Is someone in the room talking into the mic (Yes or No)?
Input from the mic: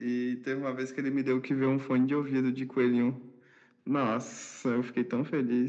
No